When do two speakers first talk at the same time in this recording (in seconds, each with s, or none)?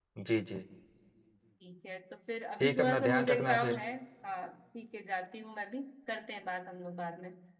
2.6 s